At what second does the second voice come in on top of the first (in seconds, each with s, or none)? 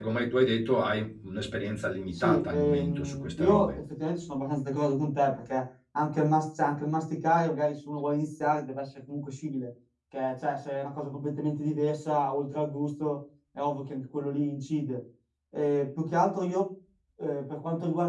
2.1 s